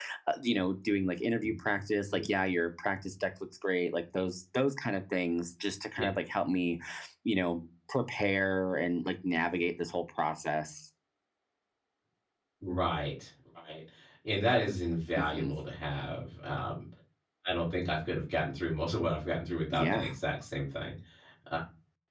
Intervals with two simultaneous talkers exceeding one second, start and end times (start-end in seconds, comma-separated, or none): none